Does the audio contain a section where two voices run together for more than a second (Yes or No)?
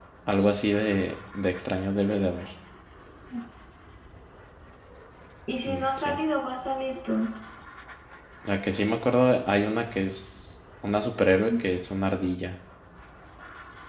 No